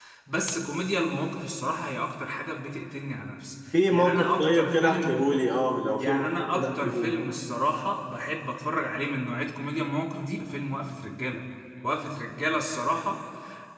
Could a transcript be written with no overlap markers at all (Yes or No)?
No